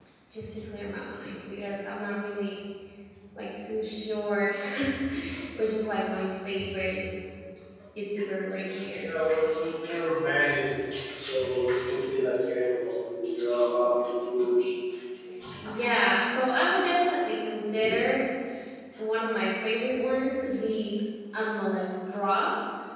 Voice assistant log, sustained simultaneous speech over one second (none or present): none